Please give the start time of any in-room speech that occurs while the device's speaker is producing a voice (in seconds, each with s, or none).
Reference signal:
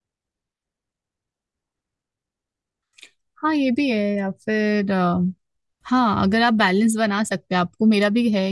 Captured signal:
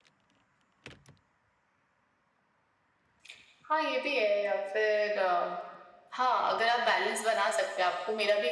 none